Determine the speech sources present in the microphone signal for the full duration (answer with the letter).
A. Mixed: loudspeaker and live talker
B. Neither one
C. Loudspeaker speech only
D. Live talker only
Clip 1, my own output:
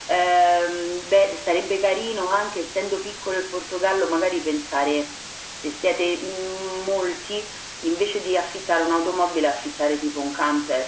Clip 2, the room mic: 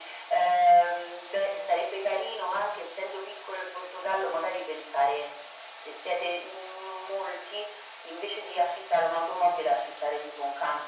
C